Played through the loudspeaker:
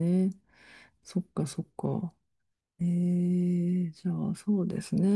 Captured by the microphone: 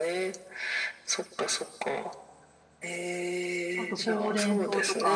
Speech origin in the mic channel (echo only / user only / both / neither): both